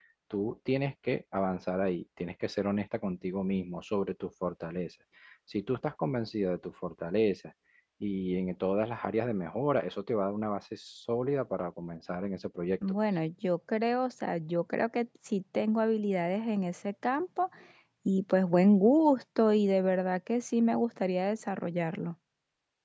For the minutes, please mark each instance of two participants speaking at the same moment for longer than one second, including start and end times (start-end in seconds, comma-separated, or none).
none